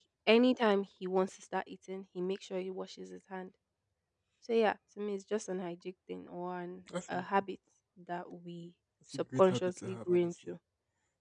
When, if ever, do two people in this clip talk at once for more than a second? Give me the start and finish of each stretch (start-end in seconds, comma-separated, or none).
9.1-10.3